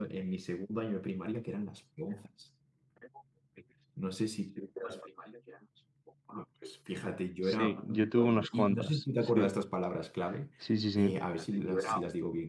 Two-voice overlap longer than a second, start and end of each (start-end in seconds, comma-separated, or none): 7.4-9.4